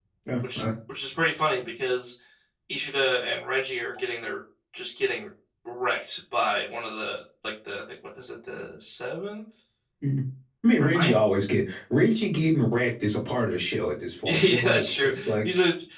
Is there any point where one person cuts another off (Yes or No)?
Yes